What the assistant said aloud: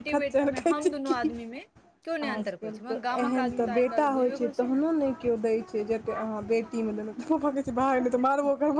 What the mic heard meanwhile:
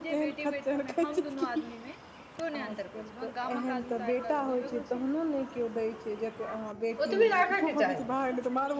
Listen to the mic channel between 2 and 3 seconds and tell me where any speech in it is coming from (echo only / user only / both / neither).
echo only